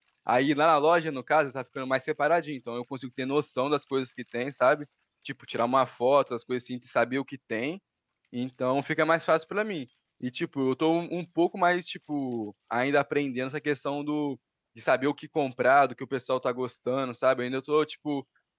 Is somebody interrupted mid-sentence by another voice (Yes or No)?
No